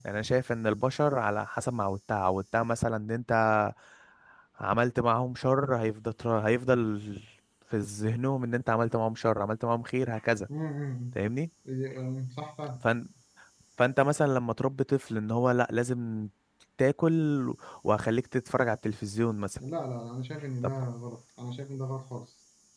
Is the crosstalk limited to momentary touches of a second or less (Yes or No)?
Yes